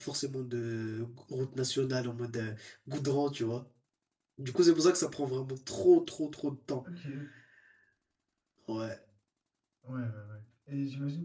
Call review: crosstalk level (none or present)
none